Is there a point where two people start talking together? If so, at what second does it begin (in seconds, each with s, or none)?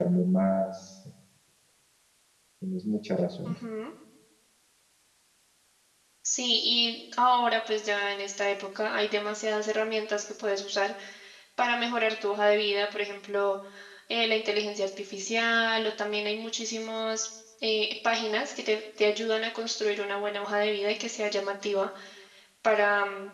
none